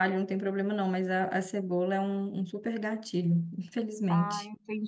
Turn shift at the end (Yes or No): Yes